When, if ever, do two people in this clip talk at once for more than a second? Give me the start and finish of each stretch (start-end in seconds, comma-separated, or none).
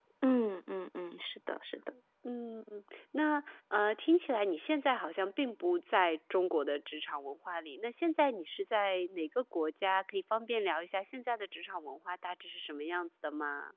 none